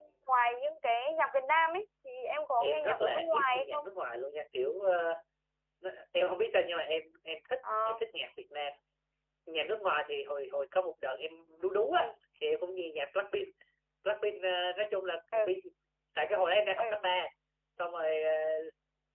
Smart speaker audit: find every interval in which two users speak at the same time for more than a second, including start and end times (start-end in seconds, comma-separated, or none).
2.6-3.8